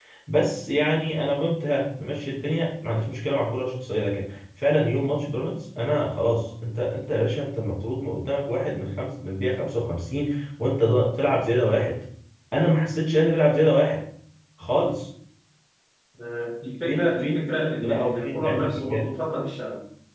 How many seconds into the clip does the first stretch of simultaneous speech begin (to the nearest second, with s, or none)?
17 s